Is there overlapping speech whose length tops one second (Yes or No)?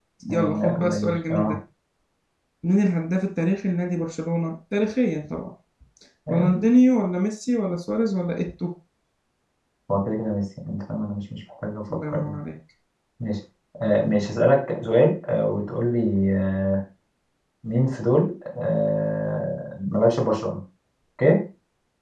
Yes